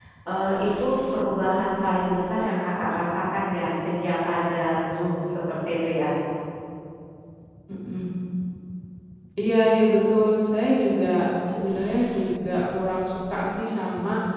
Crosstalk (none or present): none